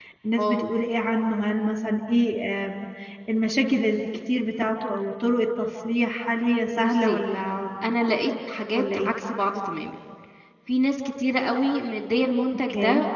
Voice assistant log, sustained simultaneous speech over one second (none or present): none